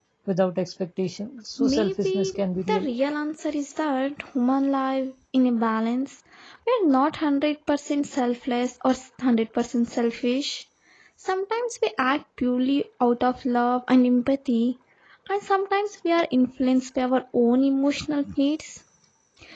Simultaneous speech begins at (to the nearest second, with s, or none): 2 s